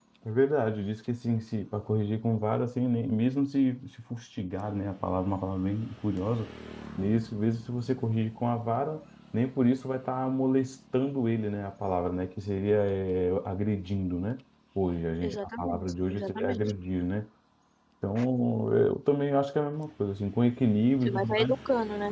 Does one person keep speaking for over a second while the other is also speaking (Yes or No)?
Yes